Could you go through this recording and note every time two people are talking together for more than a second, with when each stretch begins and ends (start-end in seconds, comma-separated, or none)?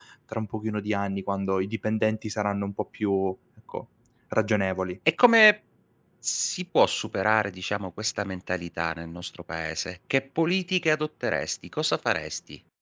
none